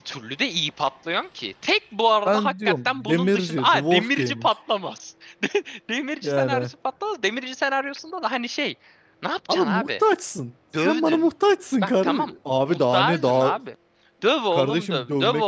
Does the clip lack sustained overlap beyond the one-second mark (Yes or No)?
No